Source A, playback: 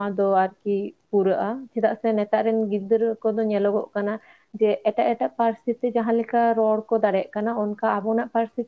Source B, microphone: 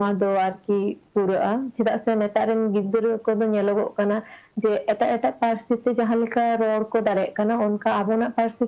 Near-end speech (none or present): none